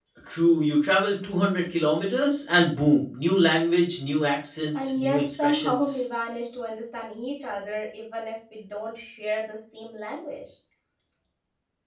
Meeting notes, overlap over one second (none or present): present